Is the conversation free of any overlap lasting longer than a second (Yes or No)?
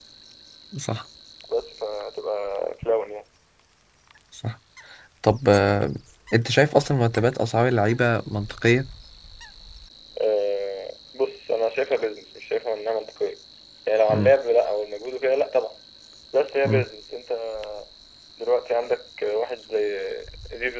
Yes